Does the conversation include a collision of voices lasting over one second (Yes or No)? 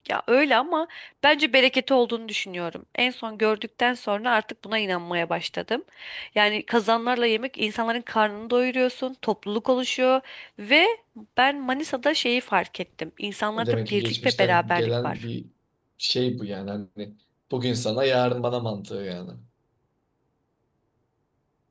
Yes